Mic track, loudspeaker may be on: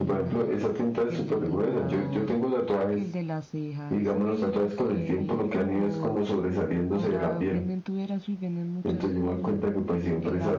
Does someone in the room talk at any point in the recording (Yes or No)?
Yes